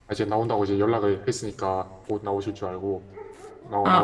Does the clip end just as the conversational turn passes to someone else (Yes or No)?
Yes